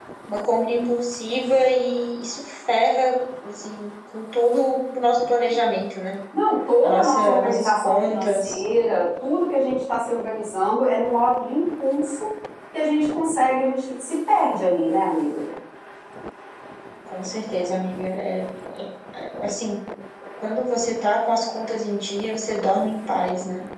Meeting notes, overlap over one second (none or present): present